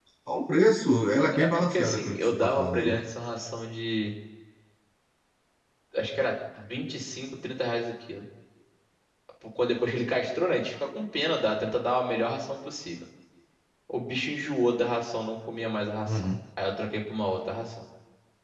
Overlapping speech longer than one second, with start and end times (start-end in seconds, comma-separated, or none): 1.3-3.0